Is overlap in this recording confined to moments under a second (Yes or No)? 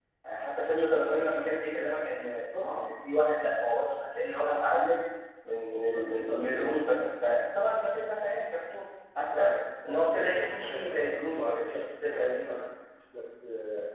No